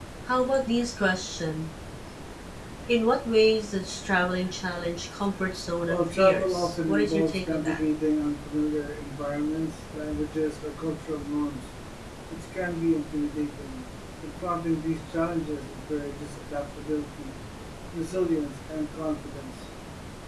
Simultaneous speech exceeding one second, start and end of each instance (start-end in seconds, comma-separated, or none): 5.8-7.8